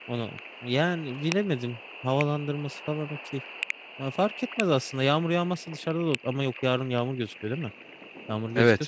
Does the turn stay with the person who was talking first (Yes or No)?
No